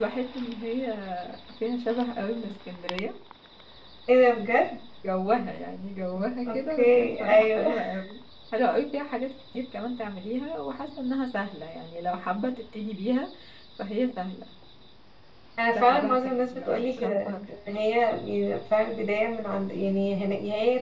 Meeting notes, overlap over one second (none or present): present